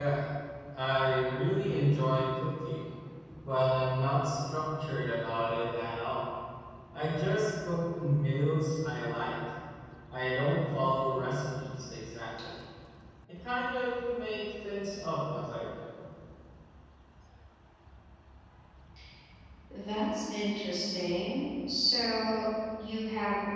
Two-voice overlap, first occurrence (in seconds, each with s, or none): none